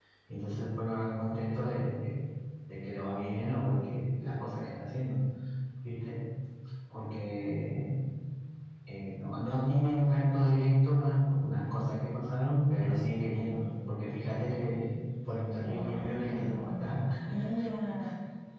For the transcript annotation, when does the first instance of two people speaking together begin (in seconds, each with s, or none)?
15.6 s